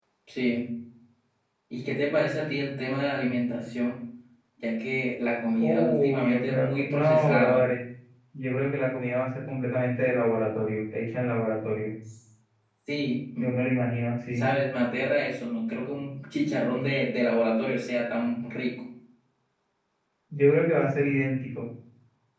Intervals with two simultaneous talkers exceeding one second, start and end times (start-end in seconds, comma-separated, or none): 5.6-7.6